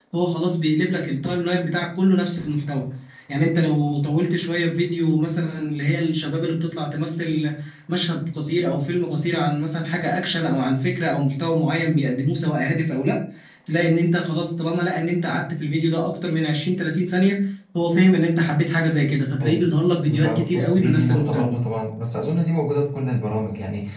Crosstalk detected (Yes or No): Yes